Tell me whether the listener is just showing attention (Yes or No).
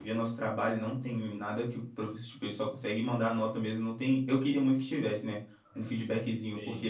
Yes